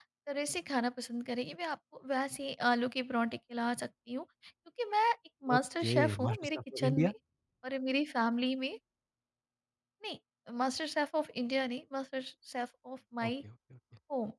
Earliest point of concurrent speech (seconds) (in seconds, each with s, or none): 5.5 s